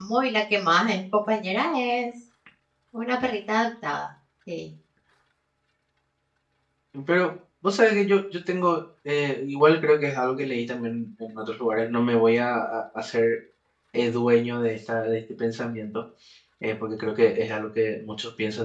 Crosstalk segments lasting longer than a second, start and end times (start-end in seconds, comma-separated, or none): none